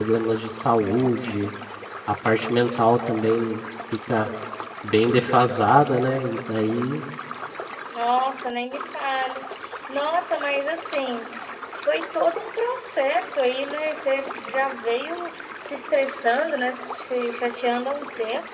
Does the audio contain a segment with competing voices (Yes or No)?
No